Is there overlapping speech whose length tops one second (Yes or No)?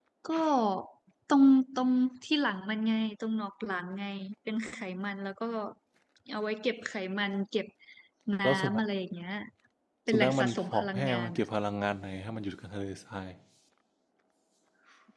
Yes